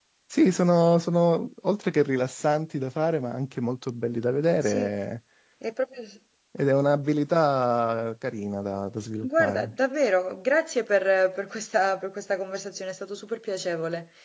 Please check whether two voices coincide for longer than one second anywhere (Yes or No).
No